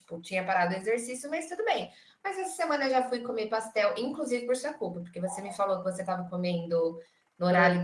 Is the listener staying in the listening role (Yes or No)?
Yes